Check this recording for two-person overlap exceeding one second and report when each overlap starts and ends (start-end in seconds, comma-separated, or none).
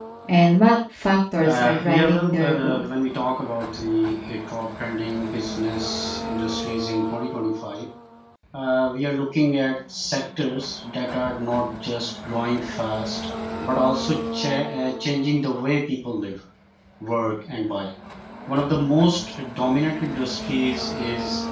1.4-2.9